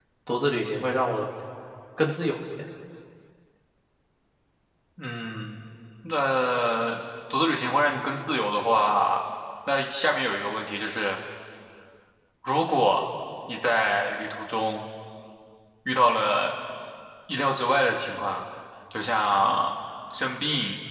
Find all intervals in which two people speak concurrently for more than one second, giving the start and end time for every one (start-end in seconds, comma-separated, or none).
none